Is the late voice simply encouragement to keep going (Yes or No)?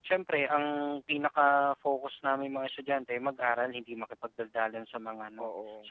Yes